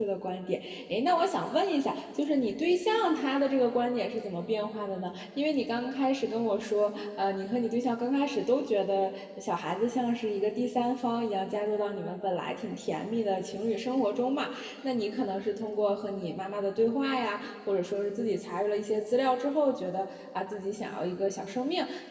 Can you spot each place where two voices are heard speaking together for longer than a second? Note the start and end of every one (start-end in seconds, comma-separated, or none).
none